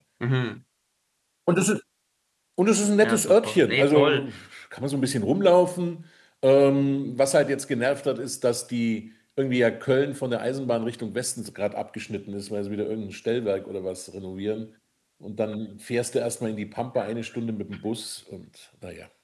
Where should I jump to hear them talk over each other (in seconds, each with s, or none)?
3.0 s